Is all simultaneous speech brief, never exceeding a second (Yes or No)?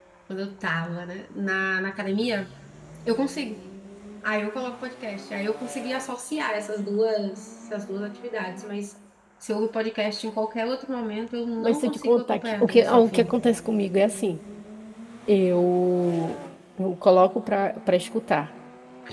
No